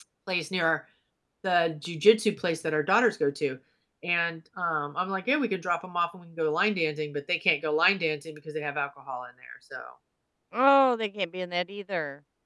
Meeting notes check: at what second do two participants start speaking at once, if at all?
none

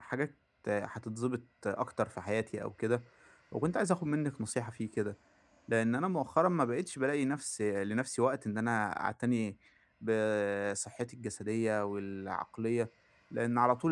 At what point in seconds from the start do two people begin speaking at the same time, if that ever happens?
none

